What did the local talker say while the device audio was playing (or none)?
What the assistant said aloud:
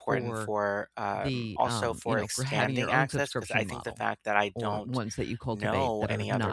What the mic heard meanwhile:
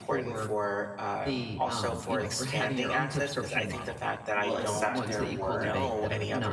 will accept their work.